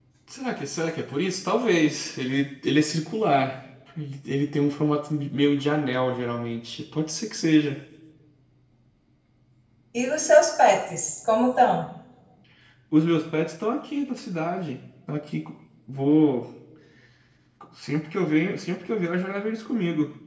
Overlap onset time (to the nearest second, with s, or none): none